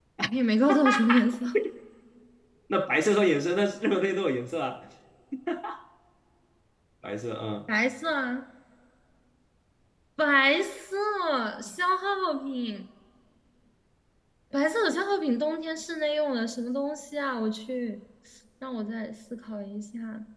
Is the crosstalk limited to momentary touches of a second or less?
Yes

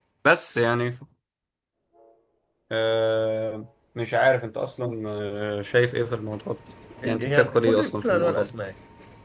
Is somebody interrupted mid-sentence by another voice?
Yes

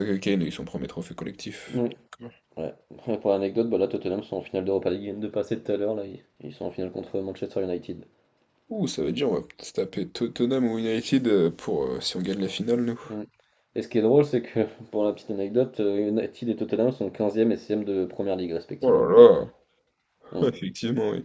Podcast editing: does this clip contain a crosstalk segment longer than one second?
No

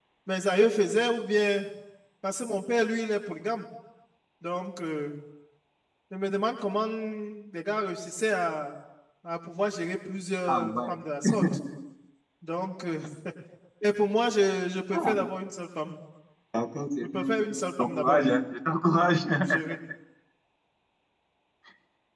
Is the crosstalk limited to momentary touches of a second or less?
No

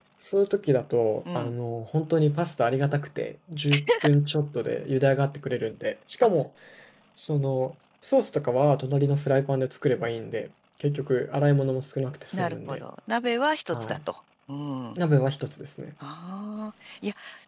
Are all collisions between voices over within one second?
Yes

